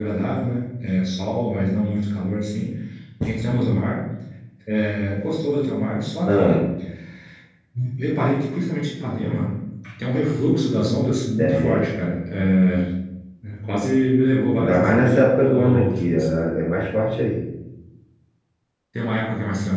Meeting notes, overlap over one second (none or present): present